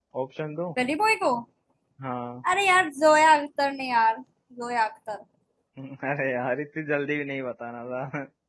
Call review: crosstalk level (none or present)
none